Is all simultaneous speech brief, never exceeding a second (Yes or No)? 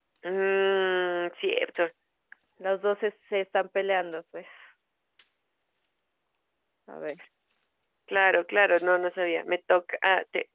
Yes